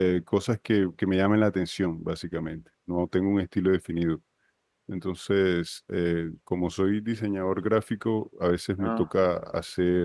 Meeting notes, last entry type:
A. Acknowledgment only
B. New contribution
A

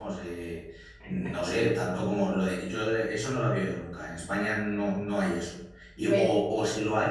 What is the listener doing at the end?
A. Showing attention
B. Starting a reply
A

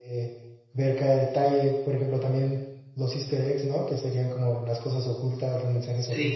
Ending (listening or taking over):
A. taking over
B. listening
B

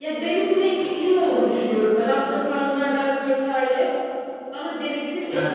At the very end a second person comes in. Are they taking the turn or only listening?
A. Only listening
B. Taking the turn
A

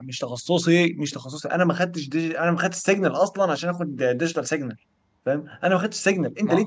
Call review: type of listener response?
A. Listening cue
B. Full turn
A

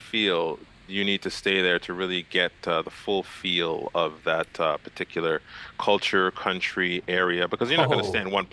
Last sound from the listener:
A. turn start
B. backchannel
B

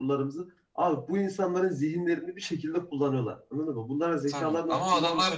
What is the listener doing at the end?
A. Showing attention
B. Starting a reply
B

